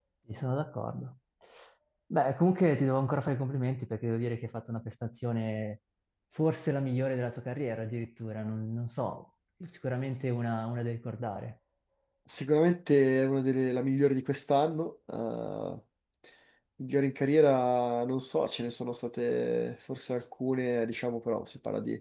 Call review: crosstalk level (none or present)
none